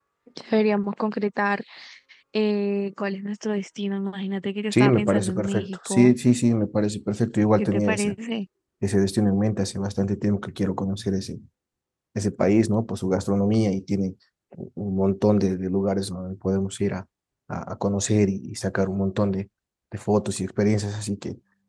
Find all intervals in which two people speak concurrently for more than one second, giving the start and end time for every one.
4.7-6.2

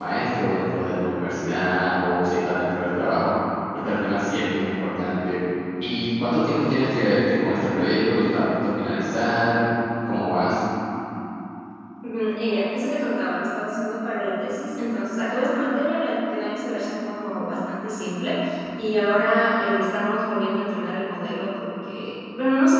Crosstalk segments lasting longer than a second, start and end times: none

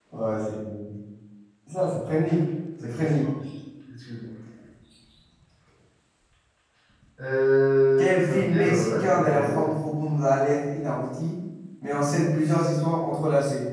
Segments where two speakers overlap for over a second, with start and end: 8.0-9.6

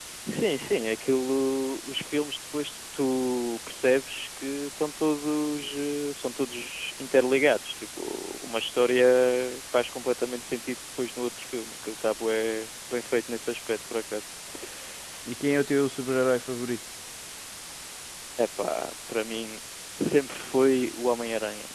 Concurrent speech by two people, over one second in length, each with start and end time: none

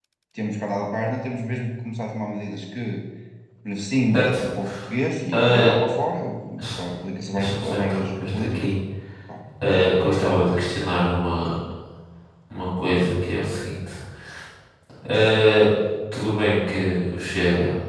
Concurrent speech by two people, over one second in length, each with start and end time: 7.3-8.7

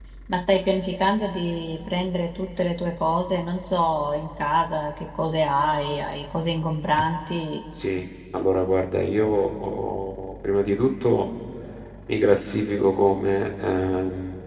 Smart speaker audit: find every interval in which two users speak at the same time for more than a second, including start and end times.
none

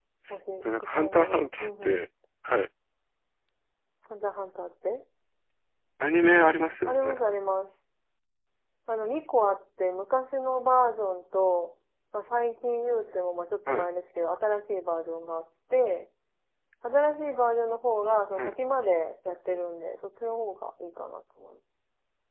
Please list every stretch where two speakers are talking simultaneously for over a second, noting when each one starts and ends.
0.6-2.0

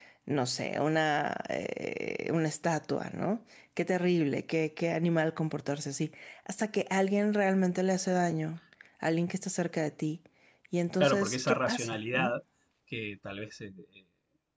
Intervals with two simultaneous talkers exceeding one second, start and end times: 11.0-12.3

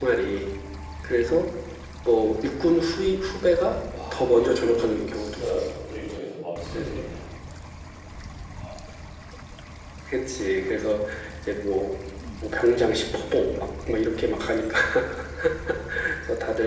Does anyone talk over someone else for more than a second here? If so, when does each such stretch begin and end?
4.1-5.6

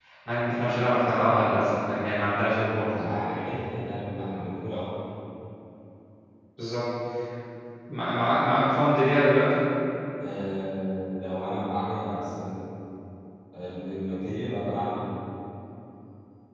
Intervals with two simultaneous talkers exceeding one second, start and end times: none

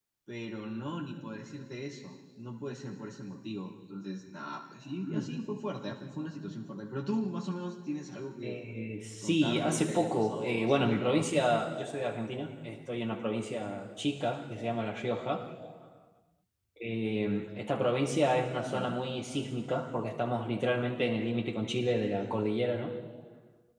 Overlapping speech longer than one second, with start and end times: 9.2-11.2

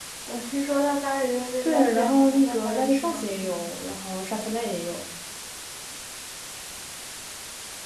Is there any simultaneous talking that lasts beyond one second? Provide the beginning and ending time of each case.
1.6-3.7

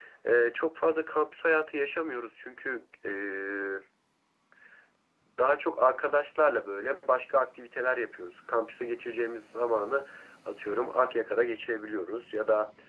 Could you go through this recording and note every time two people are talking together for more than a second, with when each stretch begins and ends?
none

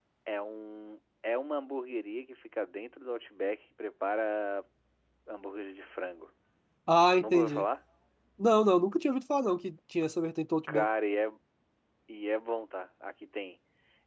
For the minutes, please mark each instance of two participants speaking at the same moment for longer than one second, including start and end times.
none

